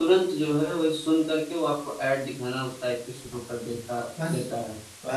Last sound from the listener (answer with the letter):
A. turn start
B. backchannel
A